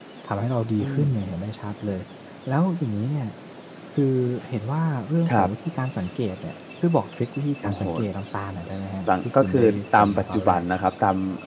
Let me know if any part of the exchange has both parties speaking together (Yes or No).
Yes